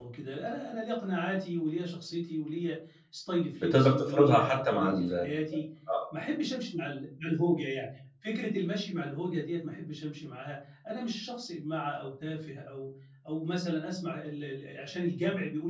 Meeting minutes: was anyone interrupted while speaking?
Yes, from 3.6 s

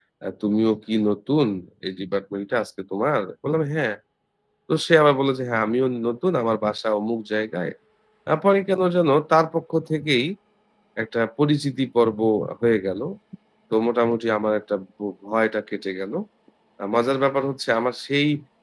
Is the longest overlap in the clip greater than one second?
No

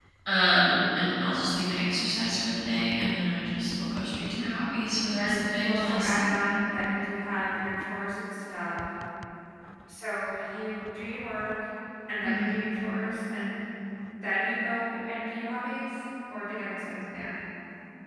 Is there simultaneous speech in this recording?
Yes, from 4.8 s

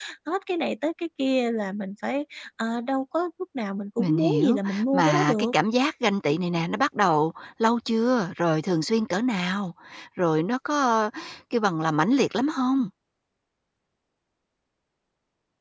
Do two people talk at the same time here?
Yes, from 4.0 s

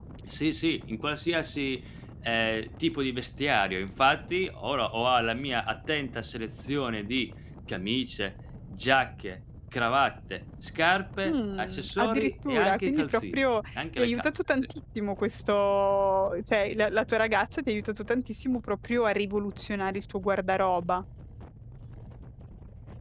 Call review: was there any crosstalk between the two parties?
Yes, from 11.2 s

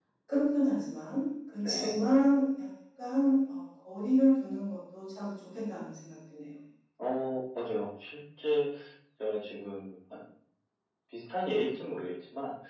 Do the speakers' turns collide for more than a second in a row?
No

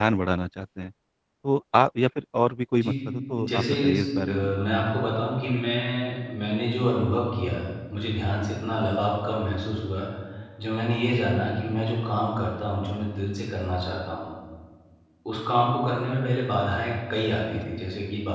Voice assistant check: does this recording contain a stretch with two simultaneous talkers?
Yes, from 2.7 s

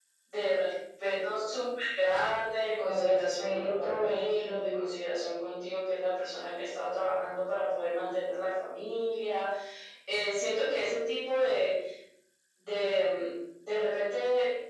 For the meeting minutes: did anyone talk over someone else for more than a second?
Yes, from 2.8 s

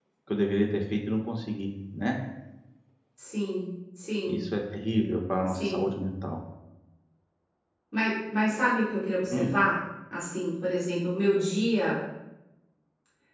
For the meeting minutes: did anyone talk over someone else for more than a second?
No

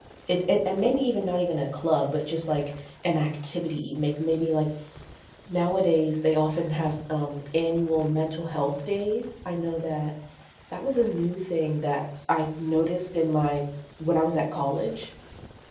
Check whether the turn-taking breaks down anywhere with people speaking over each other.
No

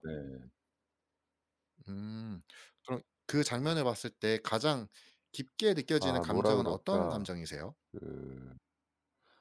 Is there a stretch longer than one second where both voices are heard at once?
Yes, from 6.0 s

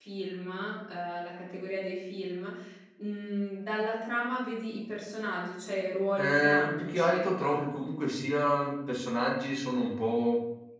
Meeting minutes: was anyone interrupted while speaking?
Yes, from 6.2 s

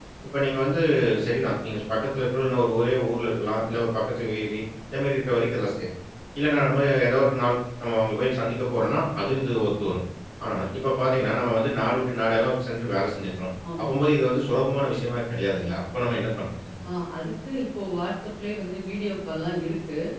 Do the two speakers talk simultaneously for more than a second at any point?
No

